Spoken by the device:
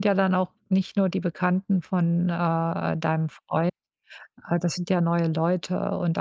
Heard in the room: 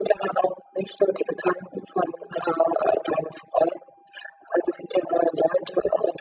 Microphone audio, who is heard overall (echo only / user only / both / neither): echo only